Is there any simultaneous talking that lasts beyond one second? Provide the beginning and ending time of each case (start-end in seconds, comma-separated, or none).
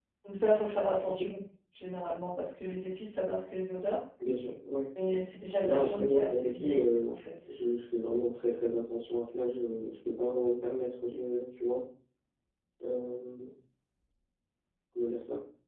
5.6-7.5